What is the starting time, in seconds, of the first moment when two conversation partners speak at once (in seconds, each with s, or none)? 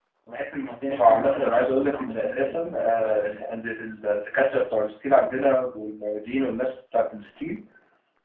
0.9 s